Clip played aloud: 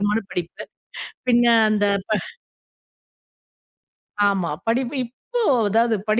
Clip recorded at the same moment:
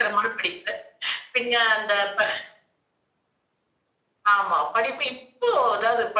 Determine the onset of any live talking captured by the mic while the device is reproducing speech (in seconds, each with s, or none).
none